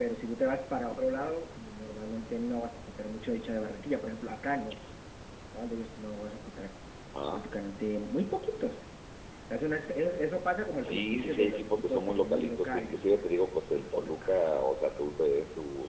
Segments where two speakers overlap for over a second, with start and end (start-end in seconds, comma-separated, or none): 10.8-13.2